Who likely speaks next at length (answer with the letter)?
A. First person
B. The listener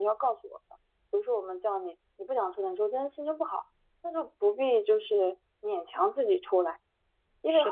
A